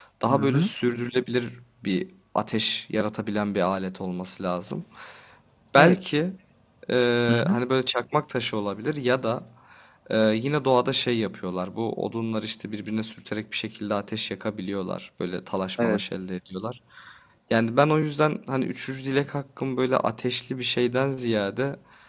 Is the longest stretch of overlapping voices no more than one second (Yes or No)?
Yes